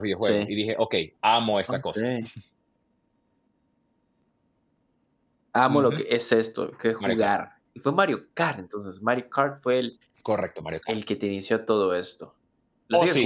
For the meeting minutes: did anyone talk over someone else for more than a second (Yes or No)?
No